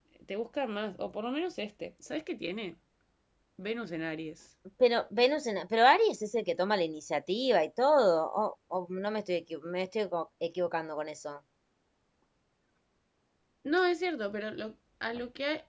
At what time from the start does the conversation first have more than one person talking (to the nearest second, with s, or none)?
none